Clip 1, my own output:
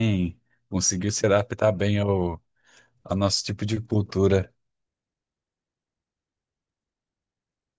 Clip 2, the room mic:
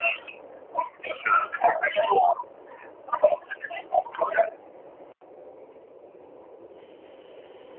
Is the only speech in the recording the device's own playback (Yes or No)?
Yes